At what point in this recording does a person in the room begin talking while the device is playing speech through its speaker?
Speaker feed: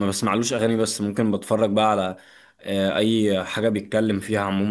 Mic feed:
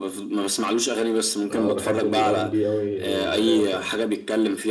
1 s

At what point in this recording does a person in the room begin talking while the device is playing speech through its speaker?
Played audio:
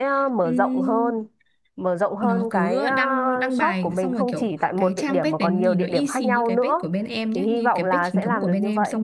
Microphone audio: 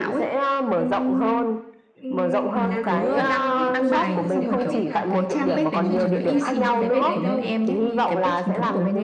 2 s

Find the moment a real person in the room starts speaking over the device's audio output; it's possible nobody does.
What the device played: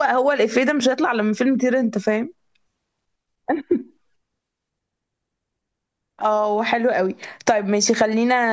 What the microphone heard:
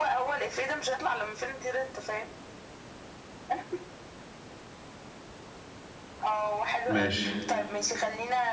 7 s

